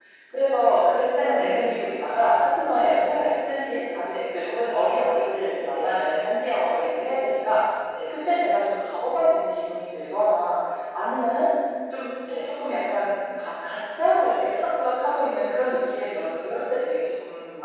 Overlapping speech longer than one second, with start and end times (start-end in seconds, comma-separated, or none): none